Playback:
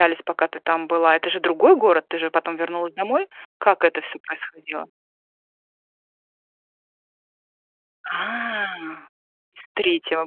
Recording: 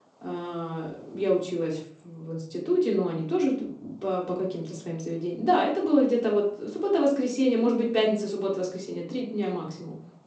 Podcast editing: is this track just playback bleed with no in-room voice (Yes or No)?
No